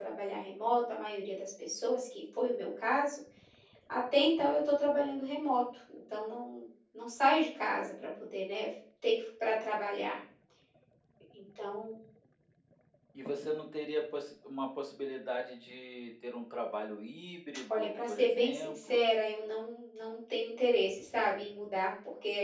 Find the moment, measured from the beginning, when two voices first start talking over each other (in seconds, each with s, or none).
17.7 s